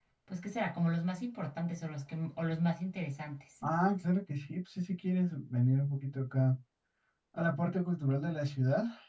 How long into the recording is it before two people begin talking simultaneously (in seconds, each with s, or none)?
none